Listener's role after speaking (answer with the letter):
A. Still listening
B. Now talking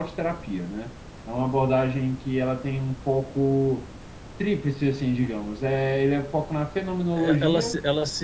B